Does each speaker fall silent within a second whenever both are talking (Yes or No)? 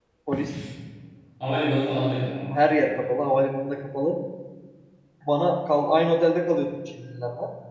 Yes